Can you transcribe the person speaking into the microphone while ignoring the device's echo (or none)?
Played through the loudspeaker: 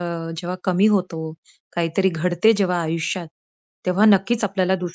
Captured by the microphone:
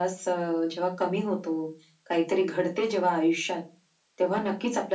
none